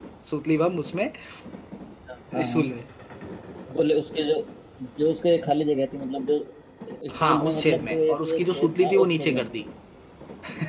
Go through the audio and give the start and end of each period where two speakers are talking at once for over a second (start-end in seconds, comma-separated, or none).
7.2-9.4